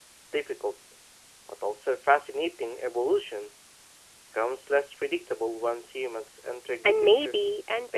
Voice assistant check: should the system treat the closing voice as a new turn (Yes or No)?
Yes